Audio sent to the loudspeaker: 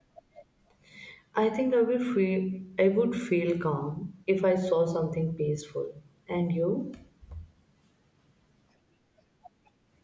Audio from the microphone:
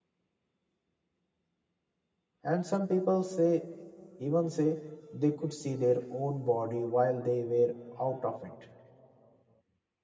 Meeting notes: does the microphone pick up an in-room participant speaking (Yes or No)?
Yes